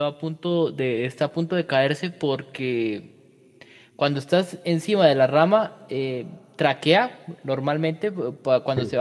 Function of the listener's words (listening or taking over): listening